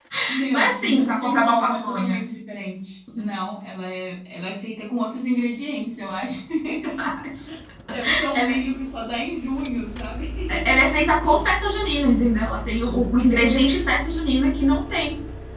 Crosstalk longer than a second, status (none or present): present